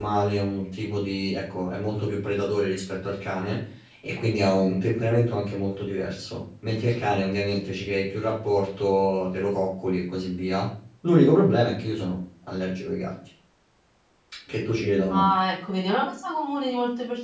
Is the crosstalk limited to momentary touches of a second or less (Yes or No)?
Yes